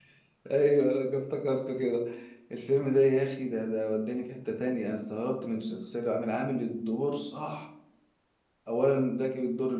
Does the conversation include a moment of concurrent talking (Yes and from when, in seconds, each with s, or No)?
No